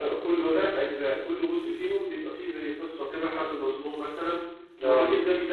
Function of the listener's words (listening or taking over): listening